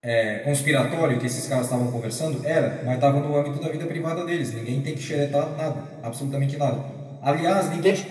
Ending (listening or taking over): listening